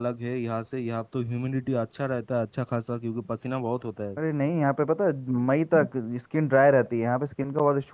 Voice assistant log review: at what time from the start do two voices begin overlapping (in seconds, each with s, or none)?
none